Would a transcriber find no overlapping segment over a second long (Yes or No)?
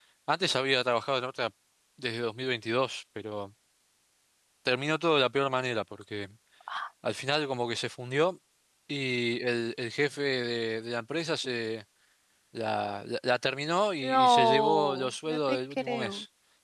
No